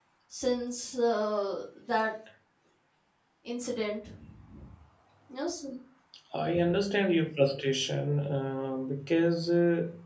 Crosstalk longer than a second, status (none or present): none